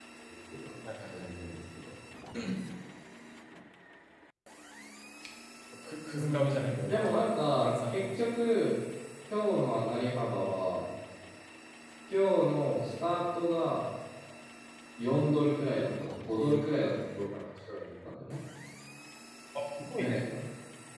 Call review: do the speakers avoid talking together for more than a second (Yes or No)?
No